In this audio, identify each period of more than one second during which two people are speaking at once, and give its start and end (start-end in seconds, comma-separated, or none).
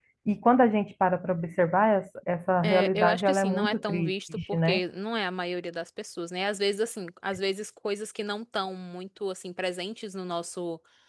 2.6-4.8